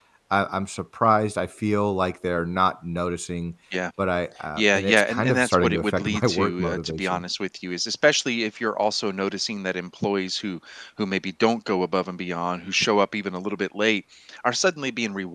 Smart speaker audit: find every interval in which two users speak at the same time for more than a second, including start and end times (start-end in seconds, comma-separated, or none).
4.6-7.2